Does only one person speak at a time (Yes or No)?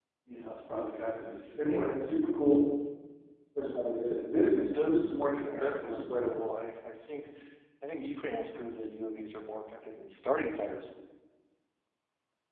No